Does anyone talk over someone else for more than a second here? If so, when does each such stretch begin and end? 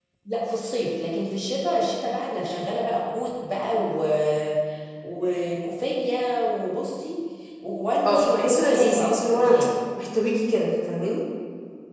8.1-9.6

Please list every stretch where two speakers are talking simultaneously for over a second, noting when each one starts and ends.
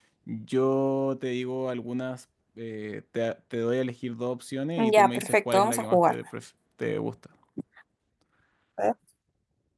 4.8-6.1

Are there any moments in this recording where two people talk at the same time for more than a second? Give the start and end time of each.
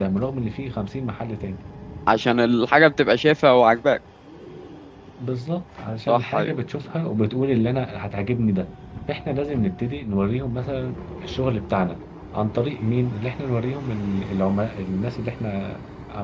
none

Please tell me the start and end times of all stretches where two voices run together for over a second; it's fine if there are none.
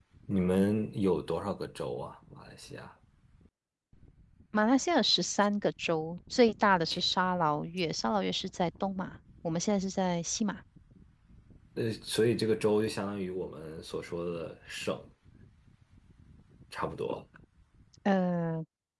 none

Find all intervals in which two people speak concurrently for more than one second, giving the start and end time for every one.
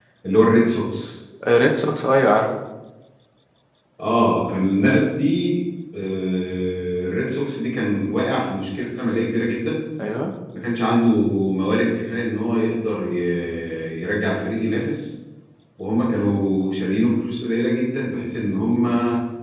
none

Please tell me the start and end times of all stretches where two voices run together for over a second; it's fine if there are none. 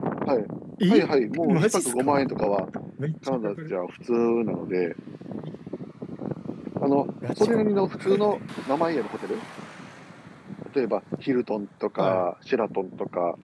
0.9-2.2

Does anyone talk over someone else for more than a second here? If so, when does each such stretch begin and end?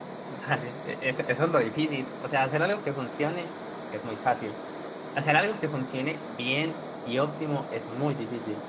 none

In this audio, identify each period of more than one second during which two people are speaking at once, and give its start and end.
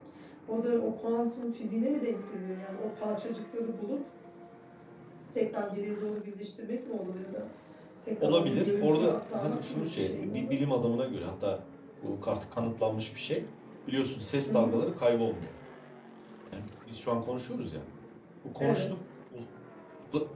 8.2-10.6

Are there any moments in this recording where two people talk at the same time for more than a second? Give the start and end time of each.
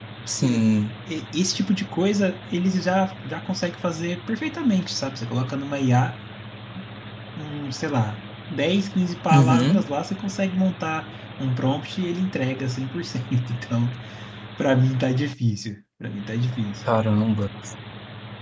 none

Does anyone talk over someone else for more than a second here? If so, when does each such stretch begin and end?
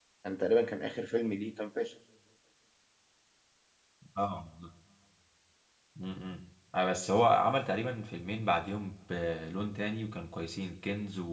none

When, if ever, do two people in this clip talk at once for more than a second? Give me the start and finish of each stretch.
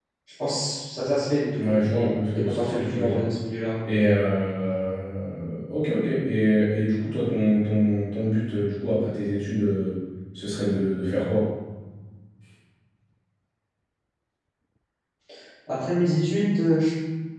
1.5-3.2

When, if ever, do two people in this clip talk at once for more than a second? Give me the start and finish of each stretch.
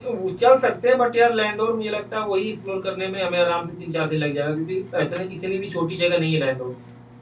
none

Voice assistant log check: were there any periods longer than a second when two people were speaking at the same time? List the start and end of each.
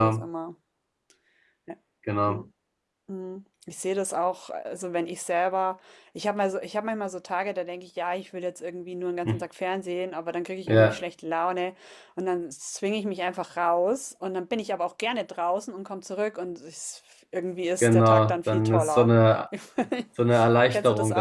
17.8-19.1

